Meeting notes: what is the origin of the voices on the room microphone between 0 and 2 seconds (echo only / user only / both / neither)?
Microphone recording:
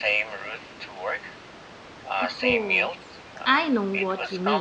echo only